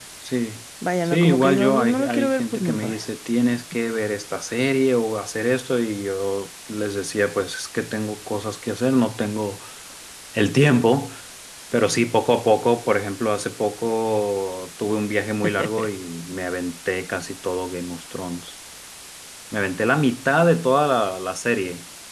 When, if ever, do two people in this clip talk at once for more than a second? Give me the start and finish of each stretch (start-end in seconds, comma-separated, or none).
1.1-3.0